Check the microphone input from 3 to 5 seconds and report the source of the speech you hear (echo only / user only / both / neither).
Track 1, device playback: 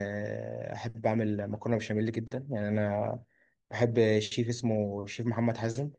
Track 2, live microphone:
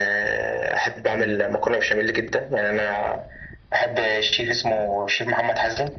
echo only